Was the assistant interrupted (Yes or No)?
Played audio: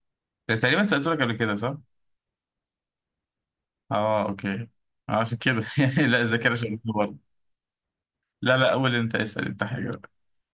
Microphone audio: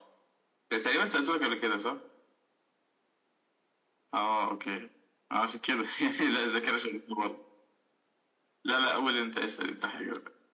No